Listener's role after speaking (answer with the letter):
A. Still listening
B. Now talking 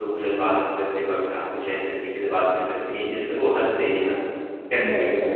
B